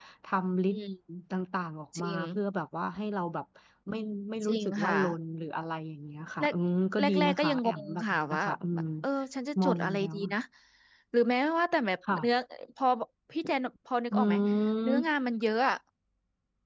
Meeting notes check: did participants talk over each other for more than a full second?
Yes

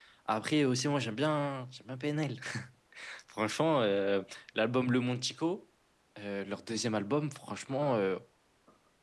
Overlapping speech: No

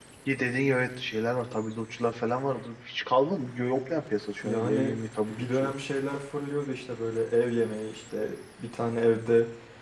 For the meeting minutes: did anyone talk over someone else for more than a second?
No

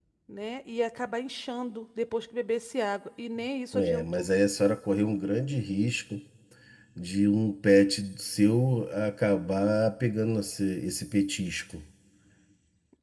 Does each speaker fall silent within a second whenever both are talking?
Yes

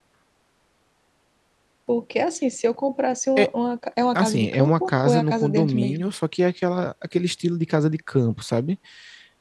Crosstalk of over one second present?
Yes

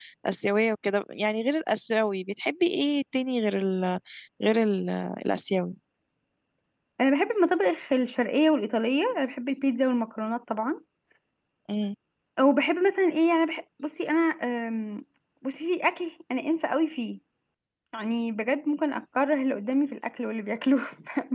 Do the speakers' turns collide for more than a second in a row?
No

